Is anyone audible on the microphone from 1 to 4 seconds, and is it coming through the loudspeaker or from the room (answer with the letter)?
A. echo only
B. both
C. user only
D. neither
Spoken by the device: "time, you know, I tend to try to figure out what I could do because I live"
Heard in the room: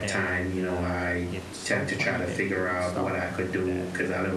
B